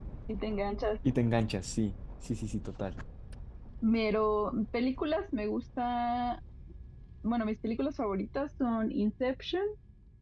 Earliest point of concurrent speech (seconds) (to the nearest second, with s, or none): none